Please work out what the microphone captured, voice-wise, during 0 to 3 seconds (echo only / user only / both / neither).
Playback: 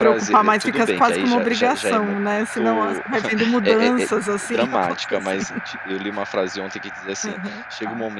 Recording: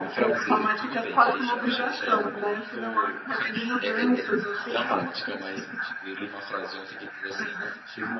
echo only